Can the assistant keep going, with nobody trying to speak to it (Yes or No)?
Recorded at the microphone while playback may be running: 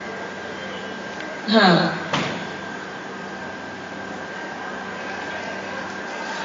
No